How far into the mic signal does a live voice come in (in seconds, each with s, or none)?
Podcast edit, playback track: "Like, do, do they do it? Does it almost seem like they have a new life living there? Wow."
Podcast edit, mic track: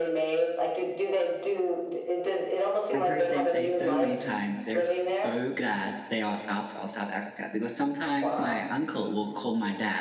2.9 s